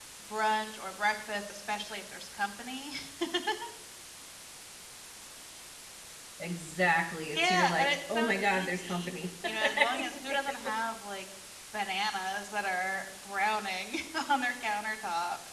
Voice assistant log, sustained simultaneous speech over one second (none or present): present